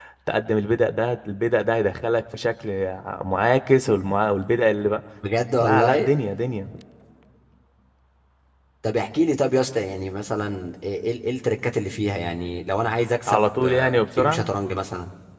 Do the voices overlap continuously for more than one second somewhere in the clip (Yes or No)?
Yes